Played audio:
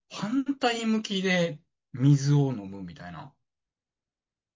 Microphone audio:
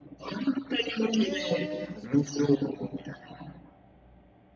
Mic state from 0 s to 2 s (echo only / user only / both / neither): both